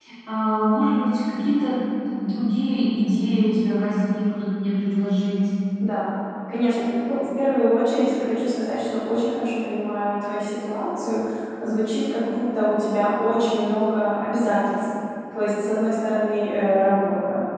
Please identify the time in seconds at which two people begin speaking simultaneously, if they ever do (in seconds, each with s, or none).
none